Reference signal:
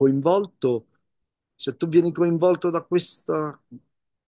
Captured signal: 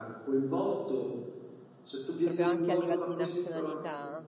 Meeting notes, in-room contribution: present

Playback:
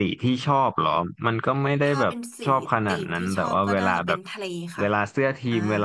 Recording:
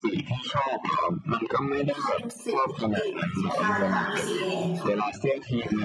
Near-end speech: present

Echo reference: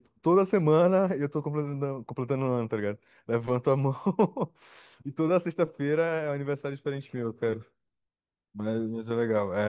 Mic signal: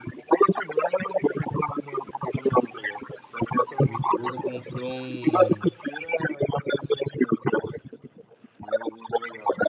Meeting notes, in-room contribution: present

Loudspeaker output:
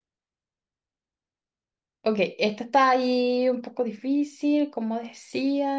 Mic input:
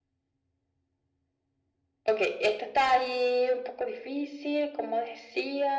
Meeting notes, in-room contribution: none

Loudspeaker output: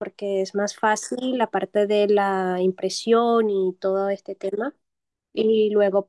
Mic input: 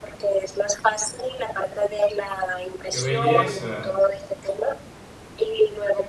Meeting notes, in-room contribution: present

